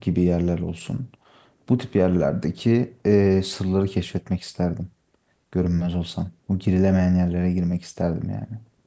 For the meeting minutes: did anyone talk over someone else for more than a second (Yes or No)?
No